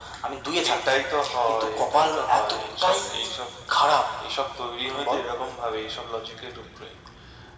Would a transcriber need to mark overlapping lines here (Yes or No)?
Yes